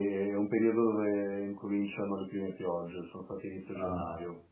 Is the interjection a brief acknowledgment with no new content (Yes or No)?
No